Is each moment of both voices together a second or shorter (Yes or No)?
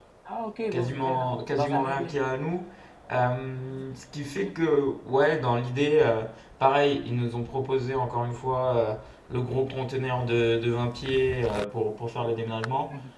No